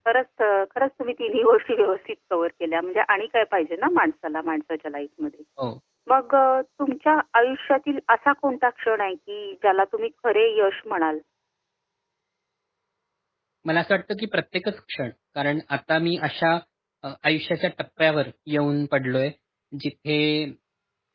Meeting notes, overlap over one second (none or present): none